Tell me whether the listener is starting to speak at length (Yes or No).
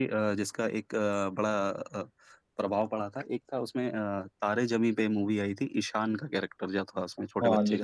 Yes